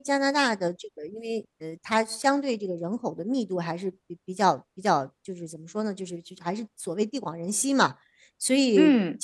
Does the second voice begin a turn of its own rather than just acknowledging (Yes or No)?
No